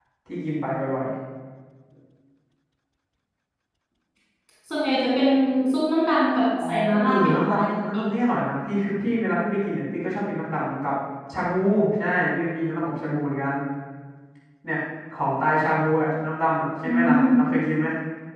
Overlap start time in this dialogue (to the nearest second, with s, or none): 7 s